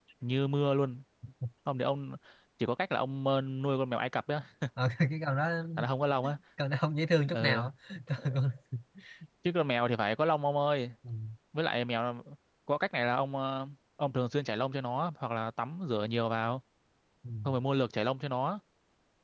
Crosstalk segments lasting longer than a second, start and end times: none

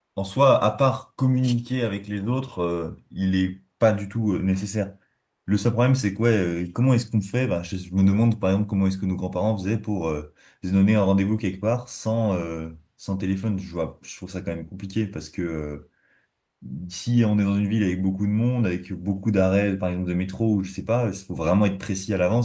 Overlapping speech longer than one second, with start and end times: none

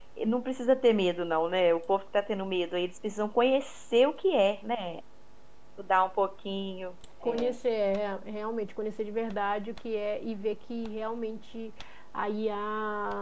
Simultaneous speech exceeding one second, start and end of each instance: none

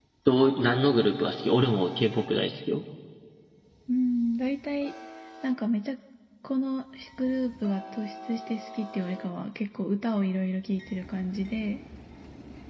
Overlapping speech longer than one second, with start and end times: none

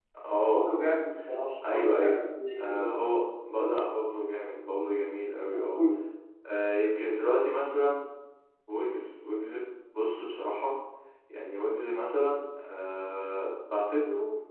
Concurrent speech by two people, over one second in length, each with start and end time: none

